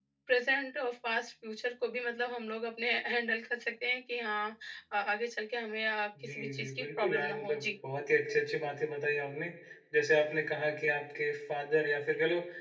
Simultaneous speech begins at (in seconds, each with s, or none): 6.2 s